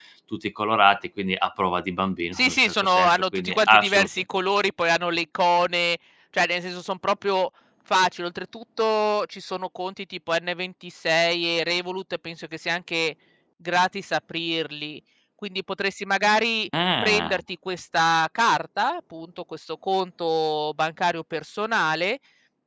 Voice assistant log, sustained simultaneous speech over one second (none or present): present